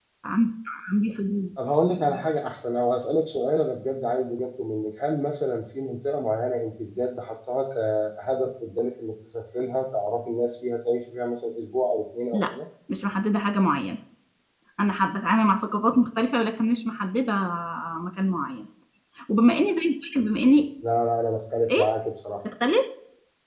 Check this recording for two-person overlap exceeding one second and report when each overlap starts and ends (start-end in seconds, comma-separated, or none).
none